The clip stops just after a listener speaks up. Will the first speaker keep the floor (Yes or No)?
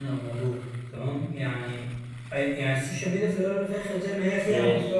Yes